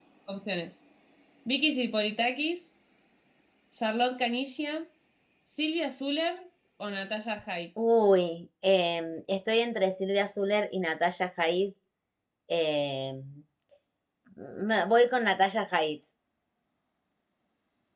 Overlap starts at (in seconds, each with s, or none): none